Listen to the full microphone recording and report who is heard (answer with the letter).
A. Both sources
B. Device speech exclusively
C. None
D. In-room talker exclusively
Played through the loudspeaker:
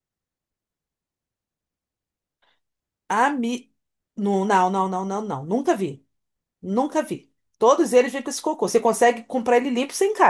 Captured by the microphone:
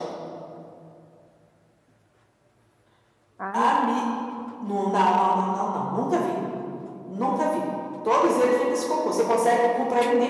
A